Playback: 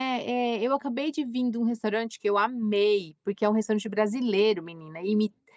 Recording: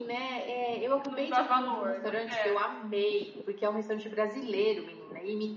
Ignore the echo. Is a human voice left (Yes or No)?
Yes